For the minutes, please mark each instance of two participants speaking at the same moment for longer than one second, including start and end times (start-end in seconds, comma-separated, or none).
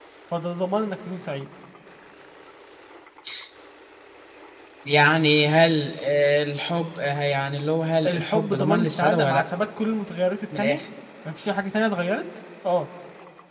8.1-9.5